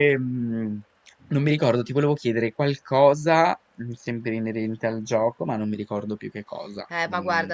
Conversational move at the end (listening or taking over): taking over